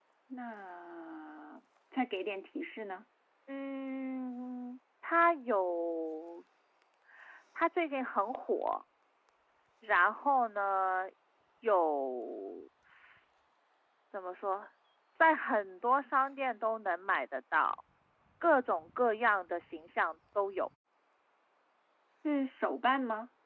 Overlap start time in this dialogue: none

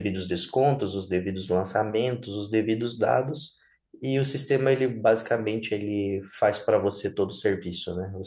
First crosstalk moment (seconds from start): none

